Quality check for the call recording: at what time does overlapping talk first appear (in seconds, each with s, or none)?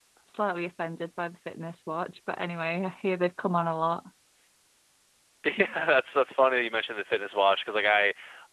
none